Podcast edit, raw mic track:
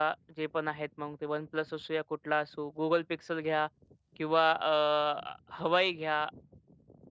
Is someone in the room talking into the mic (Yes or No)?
Yes